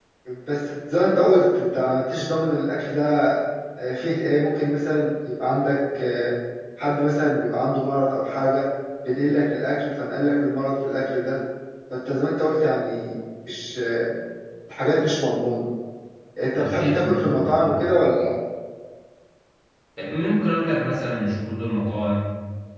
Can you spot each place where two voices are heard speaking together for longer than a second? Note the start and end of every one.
16.6-18.0

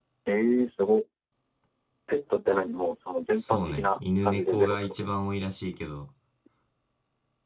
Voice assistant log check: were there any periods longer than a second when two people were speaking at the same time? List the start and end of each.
3.4-5.1

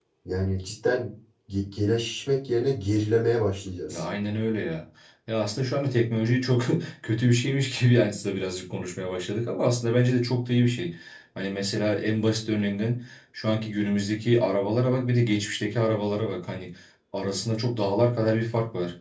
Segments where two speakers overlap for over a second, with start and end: none

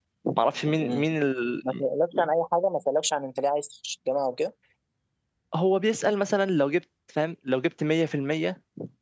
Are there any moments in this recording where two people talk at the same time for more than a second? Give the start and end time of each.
none

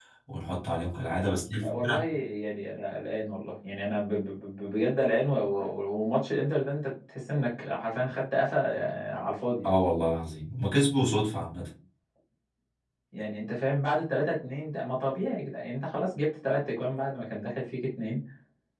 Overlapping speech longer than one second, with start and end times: none

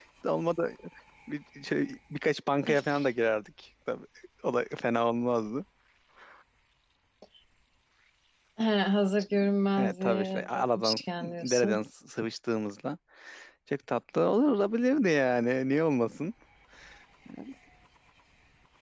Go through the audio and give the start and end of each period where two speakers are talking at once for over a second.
9.8-11.8

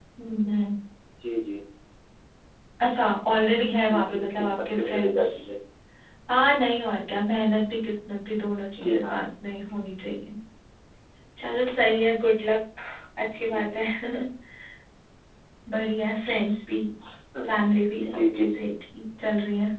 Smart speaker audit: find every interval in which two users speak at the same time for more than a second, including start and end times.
3.9-5.3

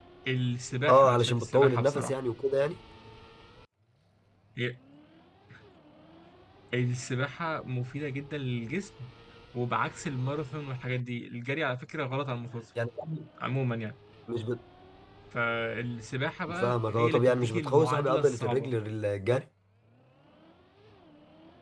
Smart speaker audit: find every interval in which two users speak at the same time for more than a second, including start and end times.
0.9-2.2, 16.5-18.7

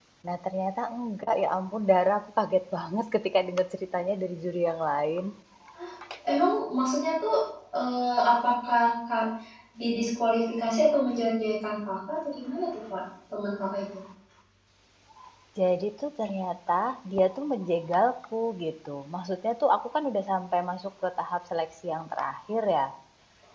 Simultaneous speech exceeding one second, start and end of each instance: none

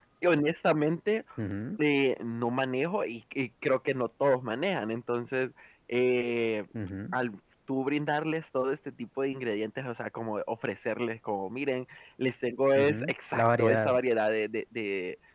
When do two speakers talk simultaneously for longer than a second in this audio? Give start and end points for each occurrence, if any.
12.8-14.0

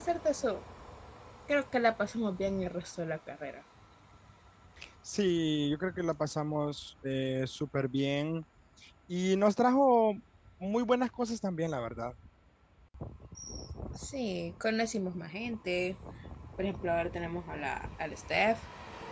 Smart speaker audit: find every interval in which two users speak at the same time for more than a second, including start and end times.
none

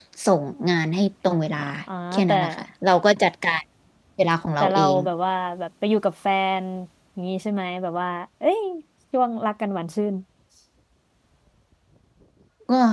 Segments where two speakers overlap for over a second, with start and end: none

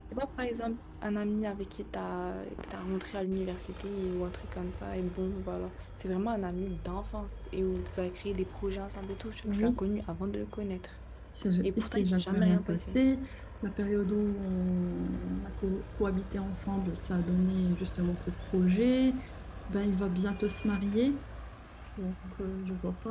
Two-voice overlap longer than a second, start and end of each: 11.6-13.0

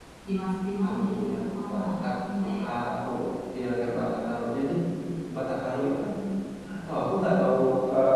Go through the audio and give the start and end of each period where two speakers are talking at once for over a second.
0.8-2.0

